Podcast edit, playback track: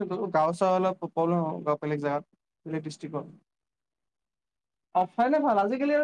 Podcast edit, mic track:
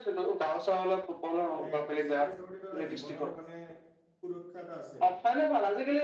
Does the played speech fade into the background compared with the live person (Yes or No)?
No